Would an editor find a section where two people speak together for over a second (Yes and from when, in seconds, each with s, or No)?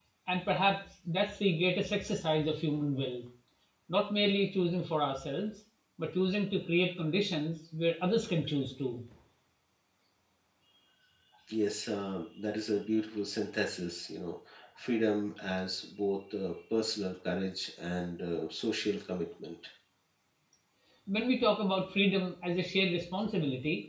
No